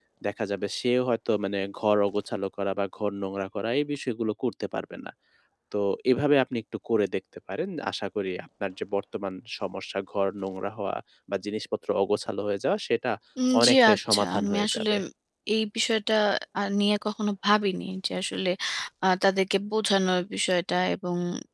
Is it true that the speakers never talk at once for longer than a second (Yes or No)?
No